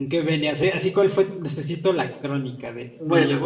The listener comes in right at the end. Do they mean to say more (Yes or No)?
No